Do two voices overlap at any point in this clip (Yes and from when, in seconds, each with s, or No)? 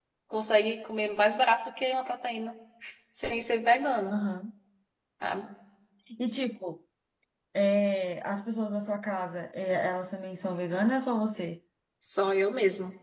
No